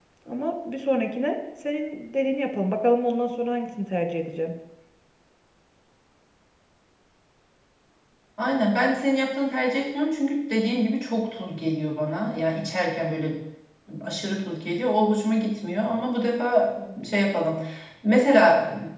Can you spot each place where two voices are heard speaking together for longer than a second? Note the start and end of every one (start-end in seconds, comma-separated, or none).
none